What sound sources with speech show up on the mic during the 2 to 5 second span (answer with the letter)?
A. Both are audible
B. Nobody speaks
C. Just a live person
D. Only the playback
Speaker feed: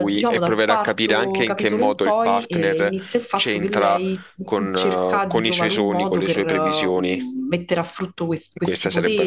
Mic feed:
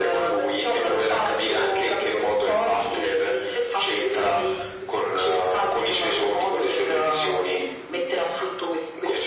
D